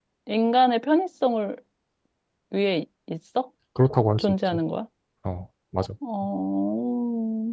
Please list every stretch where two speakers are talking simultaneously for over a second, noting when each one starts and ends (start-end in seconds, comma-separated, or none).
none